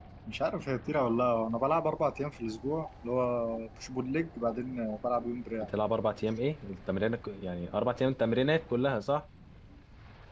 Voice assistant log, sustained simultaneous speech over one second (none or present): none